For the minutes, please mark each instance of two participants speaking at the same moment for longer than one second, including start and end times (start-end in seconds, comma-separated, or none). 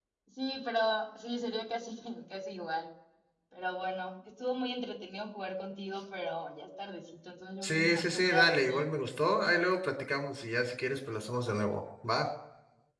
7.6-8.9